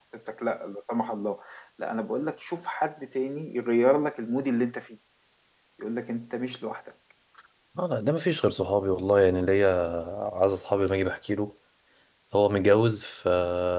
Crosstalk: none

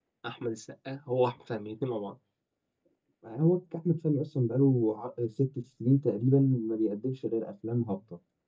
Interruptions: none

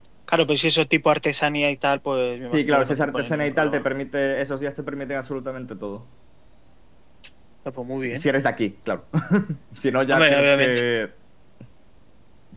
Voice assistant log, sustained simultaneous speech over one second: present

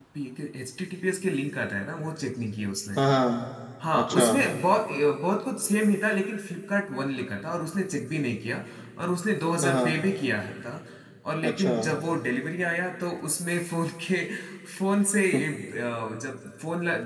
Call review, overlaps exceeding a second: none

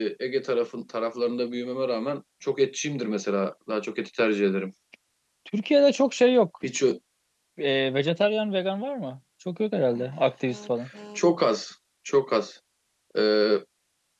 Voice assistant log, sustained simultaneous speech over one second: none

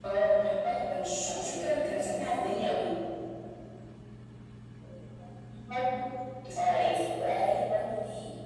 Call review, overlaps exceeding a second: present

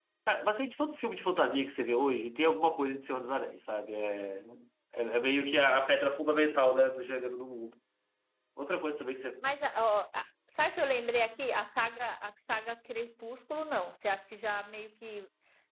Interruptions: none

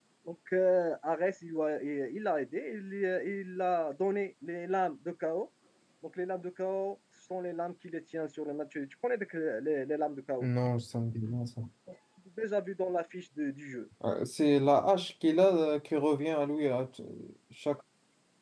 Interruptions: none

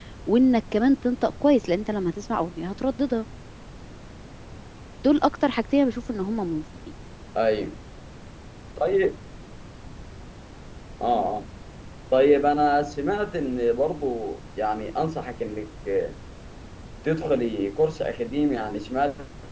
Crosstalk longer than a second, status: none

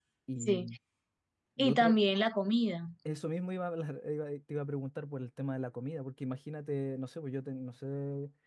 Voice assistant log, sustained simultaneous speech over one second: none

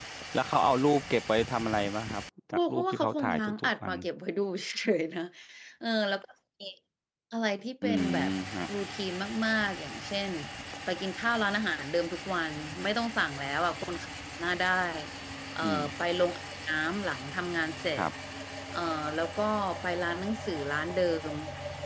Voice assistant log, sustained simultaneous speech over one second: present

